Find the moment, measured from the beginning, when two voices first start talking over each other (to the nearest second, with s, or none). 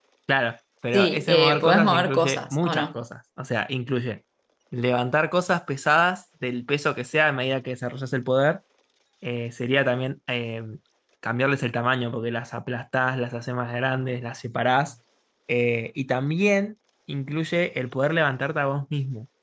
1 s